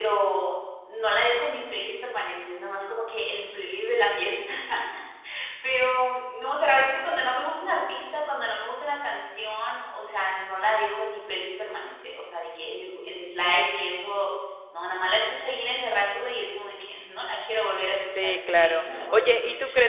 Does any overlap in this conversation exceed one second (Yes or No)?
Yes